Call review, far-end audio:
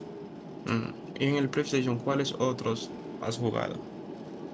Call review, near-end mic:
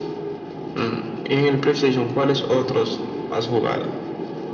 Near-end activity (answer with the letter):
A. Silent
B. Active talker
B